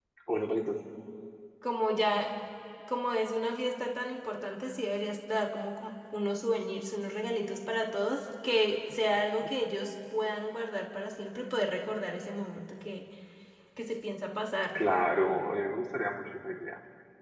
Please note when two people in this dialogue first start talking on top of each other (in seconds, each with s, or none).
none